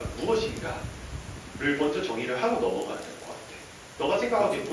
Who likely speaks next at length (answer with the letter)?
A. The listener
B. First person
B